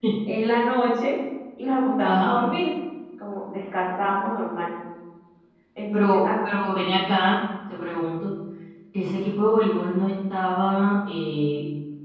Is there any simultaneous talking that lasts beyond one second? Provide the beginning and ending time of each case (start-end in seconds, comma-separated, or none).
none